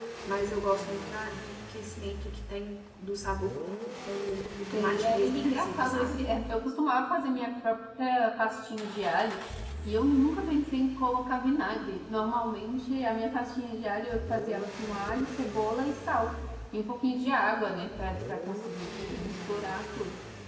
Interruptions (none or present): present